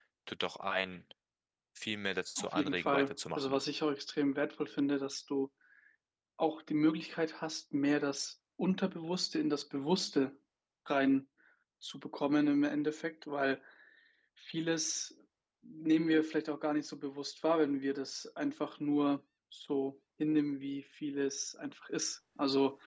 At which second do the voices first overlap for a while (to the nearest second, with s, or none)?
2 s